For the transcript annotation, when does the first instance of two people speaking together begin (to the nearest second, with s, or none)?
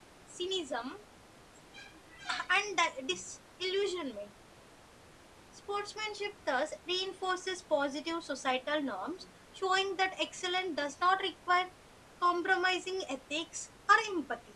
none